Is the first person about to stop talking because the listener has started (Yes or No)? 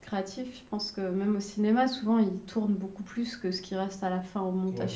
Yes